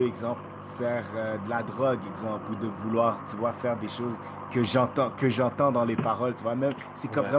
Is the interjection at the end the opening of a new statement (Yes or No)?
No